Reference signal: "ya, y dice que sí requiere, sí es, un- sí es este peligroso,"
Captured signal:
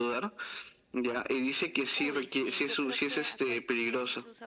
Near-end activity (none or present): present